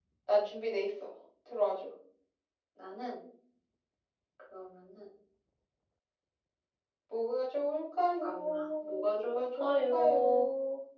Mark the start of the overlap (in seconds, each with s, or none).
8.2 s